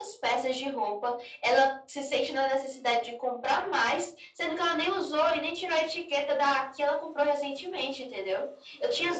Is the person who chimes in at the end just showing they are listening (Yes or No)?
Yes